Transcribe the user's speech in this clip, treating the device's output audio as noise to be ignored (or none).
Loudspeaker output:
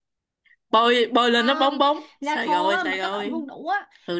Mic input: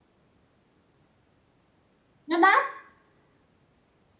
nó đắt